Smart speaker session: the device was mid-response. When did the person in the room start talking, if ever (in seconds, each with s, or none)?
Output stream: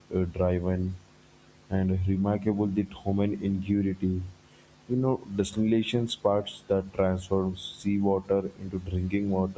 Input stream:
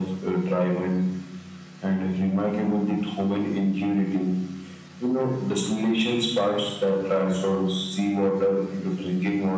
none